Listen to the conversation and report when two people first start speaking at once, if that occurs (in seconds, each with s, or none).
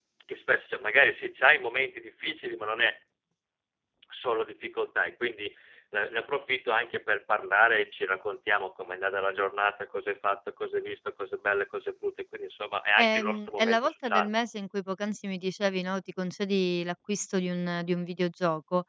13.0 s